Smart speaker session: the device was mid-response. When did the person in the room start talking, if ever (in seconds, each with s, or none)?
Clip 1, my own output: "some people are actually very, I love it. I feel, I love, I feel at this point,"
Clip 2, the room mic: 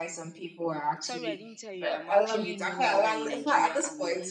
1.0 s